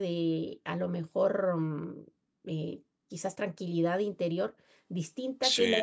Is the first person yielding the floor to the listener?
No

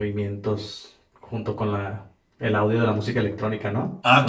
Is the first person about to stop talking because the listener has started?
Yes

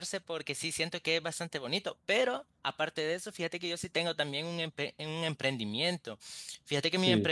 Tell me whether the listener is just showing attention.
Yes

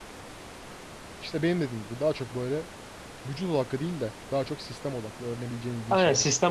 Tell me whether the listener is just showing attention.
No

